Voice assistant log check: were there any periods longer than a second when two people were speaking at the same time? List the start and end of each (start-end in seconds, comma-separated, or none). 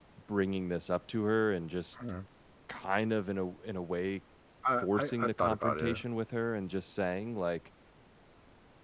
4.8-6.0